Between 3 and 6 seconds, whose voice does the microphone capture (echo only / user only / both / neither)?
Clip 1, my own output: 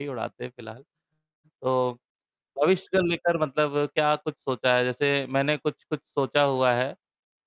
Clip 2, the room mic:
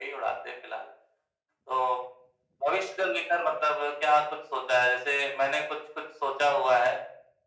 echo only